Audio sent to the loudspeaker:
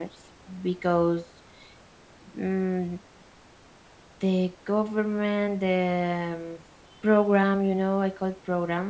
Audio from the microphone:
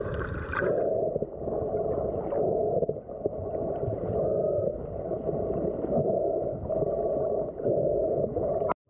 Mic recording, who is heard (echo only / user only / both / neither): neither